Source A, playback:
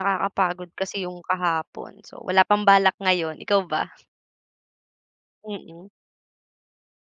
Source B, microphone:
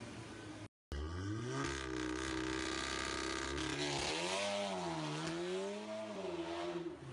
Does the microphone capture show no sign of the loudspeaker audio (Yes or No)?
Yes